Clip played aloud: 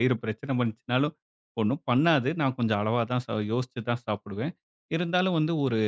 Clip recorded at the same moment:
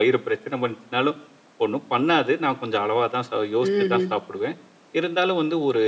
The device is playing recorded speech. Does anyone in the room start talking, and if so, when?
3.7 s

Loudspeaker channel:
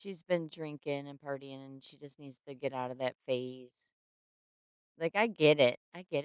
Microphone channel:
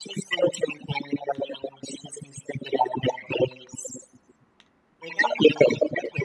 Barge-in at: none

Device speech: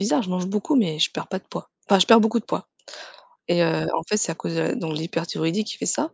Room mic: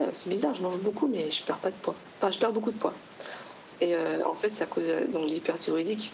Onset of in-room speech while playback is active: none

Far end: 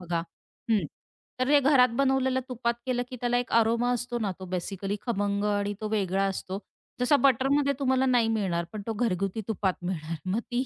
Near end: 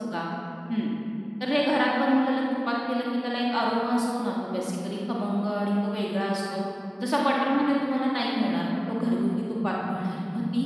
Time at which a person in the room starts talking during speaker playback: none

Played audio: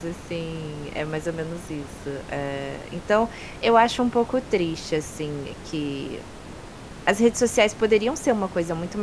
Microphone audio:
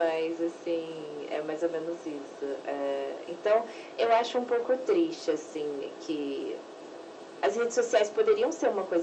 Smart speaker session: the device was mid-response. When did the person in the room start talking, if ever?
none

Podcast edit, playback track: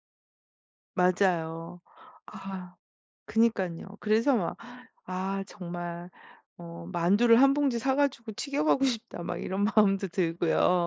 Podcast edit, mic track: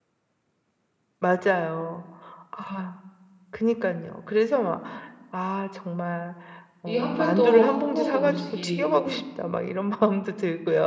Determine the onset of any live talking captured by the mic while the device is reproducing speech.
6.8 s

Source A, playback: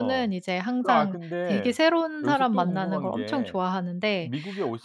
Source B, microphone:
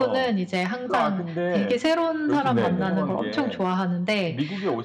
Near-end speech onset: 2.4 s

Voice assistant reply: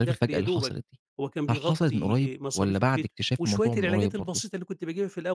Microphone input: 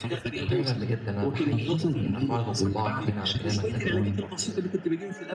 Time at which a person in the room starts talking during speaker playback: 0.5 s

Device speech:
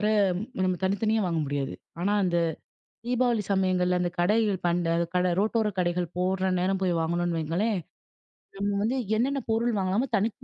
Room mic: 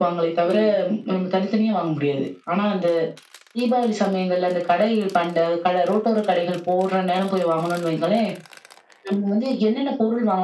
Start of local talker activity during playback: 0.4 s

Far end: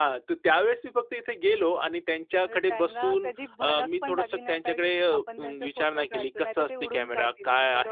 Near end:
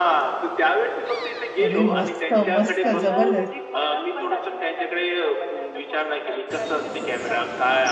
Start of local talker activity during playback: 1.6 s

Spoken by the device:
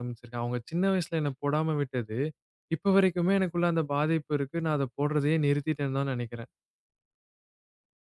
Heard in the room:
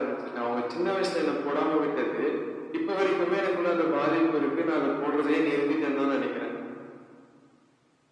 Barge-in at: none

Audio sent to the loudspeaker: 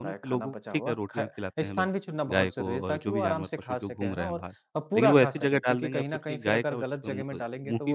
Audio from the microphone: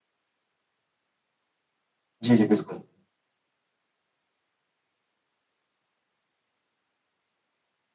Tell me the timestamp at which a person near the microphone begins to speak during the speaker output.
2.2 s

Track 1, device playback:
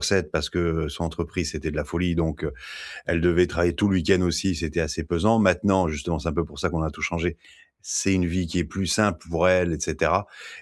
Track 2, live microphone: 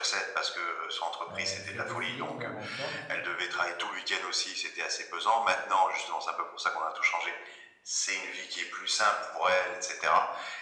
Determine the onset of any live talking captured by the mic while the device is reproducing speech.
1.3 s

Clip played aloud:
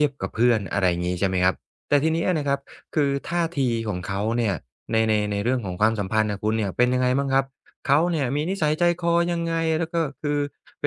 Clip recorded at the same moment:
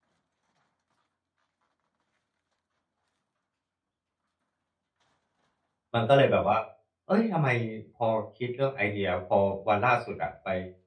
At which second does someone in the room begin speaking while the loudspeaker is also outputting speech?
5.9 s

